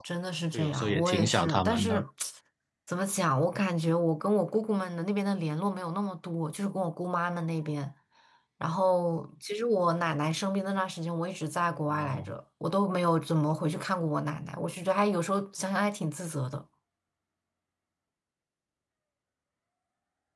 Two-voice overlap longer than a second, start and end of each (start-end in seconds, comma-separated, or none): 0.5-2.0